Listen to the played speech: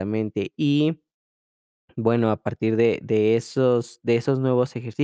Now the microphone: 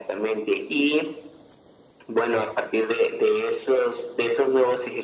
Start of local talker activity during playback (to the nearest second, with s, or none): none